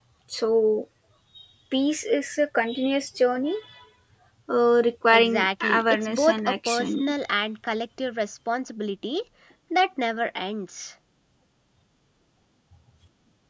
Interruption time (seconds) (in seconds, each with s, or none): 5.1 s